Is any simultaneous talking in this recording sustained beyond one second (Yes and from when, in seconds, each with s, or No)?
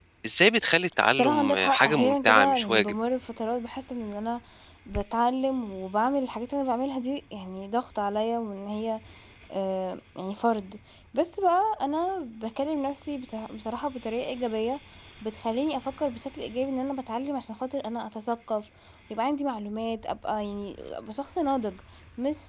Yes, from 1.1 s